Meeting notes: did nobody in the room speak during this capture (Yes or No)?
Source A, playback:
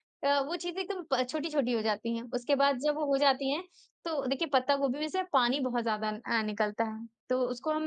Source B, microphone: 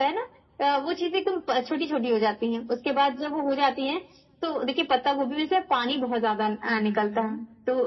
No